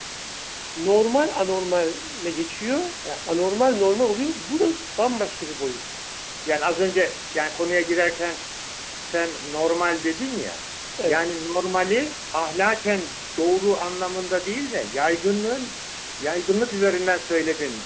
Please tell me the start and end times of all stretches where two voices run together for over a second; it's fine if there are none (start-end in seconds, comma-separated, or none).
none